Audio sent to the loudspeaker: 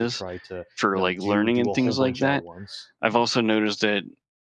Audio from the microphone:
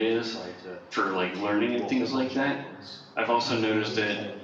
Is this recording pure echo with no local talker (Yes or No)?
No